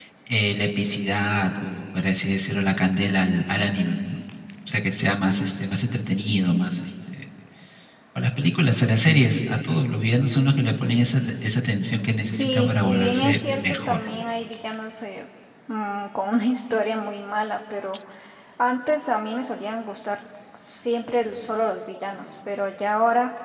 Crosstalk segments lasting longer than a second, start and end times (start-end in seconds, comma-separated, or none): 12.2-14.1